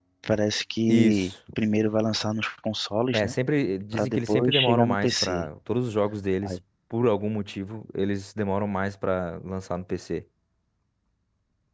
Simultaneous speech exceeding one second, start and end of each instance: 3.9-5.5

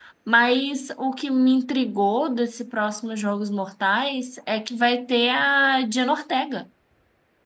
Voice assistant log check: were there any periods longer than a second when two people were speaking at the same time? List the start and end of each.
none

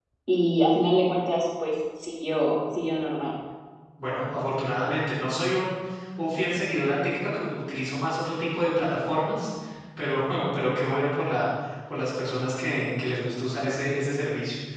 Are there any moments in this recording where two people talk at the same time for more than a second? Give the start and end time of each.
none

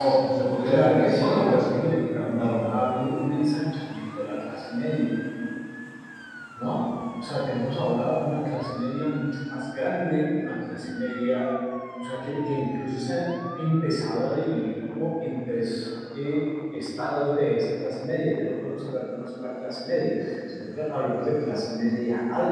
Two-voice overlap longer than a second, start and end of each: 0.6-2.5

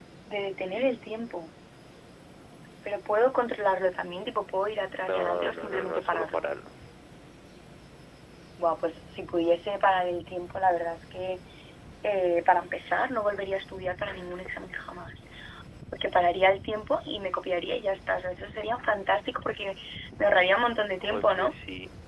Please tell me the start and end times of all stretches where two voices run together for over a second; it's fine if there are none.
5.0-6.4

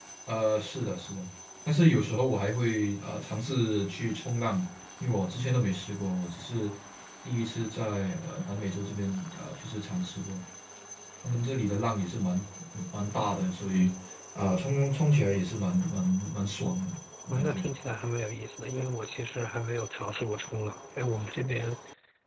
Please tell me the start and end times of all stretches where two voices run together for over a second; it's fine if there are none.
none

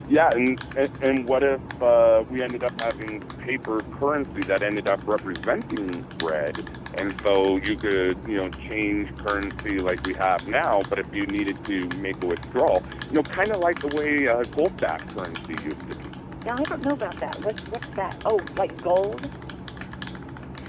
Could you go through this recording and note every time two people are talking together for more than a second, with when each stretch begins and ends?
none

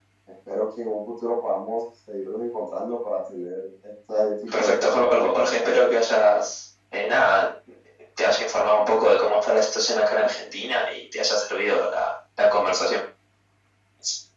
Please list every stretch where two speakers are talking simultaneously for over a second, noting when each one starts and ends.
4.5-5.8

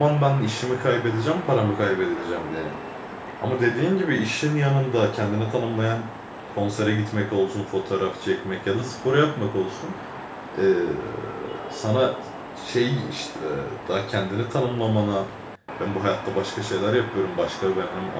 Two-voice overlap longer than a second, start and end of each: none

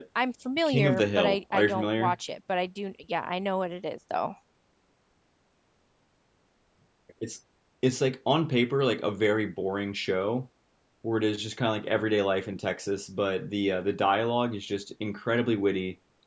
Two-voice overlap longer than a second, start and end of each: 0.7-2.2

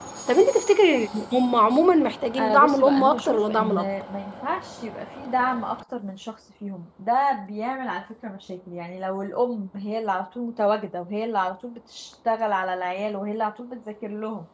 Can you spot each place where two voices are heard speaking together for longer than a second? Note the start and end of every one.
2.4-3.9

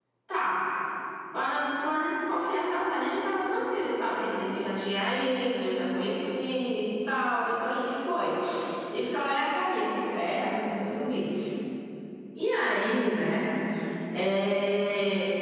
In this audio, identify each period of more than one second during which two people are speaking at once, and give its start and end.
none

